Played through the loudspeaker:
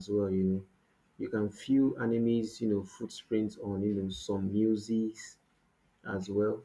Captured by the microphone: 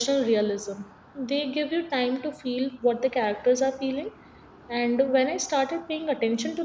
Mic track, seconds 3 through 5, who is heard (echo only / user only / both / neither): user only